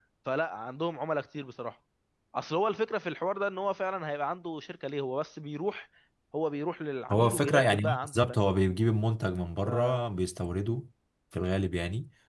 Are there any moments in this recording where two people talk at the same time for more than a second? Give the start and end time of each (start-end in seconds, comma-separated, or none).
7.1-8.4